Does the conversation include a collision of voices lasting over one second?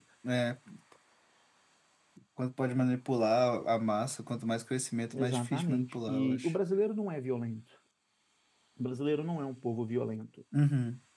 Yes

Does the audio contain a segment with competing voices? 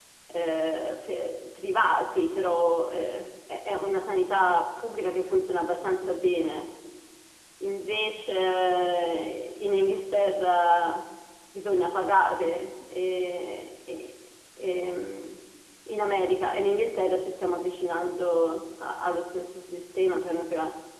No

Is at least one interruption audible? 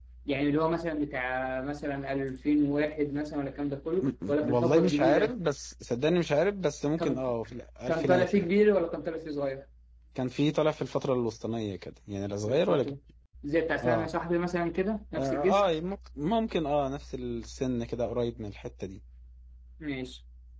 Yes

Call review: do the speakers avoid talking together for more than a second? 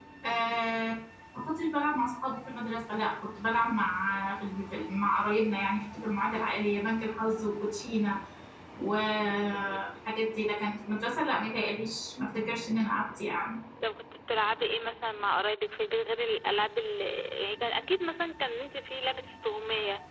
Yes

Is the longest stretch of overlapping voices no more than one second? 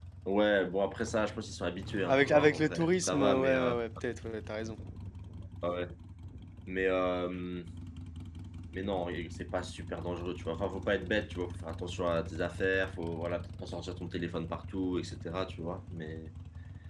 No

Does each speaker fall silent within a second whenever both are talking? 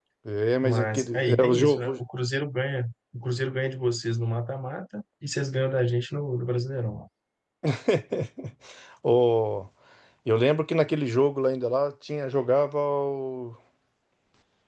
No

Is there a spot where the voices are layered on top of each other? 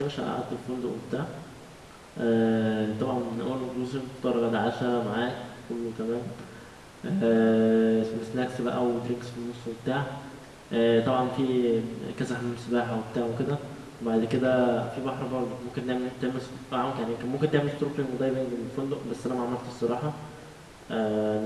No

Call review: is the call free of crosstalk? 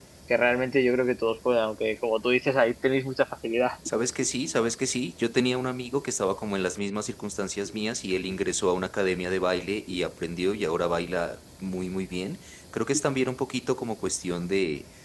Yes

